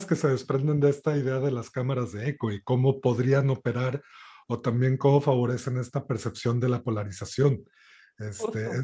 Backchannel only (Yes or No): Yes